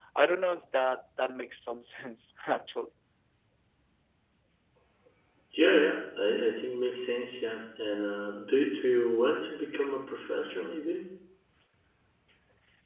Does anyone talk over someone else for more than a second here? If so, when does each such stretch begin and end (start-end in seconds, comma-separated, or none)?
none